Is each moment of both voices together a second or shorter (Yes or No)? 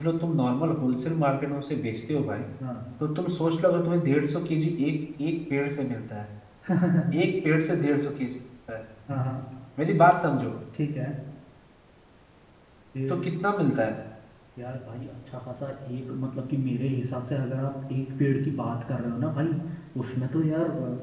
Yes